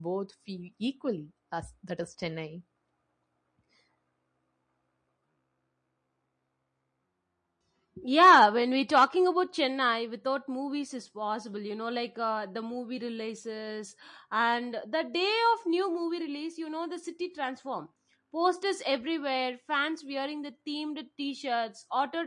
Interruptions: none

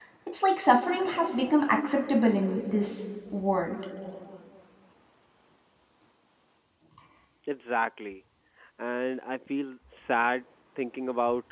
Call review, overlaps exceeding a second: none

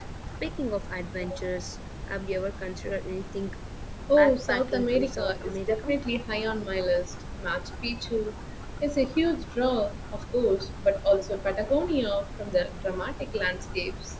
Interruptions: present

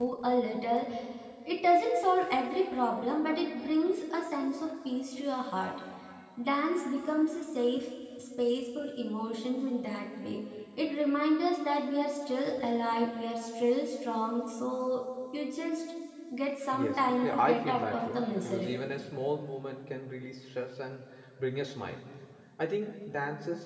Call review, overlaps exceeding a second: present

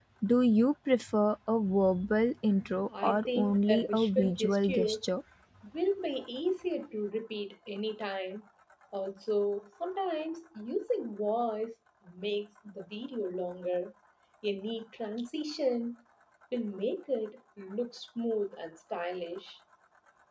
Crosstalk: present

